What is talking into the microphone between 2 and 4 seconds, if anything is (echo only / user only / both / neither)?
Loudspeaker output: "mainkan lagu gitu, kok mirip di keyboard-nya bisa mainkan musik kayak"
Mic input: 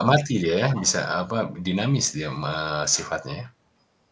user only